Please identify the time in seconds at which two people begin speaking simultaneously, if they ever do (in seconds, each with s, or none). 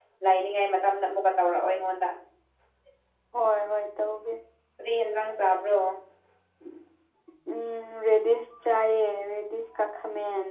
none